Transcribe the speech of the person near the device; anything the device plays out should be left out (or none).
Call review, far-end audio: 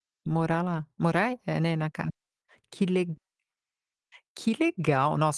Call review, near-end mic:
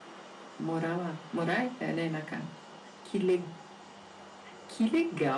none